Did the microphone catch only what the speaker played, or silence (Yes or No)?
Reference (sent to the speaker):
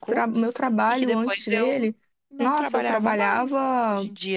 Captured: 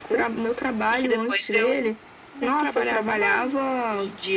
Yes